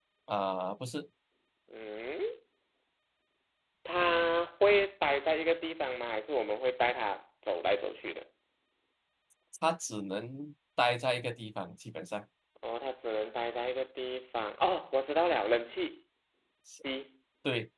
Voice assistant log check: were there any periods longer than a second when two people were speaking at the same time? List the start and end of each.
none

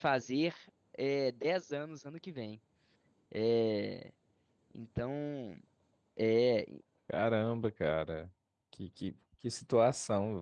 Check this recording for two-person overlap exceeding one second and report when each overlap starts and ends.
none

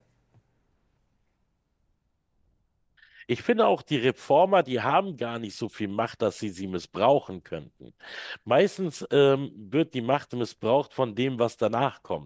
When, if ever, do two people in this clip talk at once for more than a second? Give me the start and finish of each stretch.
none

